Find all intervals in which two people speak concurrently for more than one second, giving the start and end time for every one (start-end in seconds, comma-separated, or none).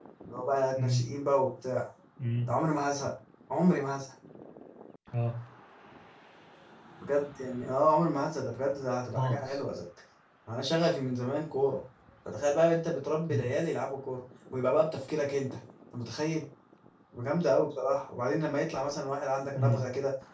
none